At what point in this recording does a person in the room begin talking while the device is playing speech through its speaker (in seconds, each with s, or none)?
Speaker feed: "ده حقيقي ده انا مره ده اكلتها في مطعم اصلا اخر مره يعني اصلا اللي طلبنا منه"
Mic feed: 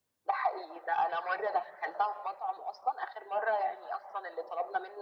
none